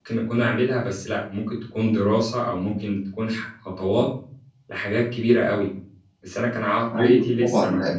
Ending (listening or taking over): taking over